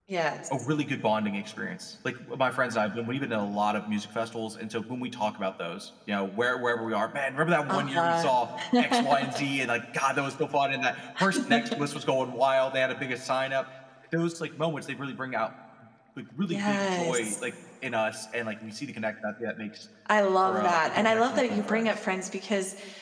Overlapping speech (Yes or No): Yes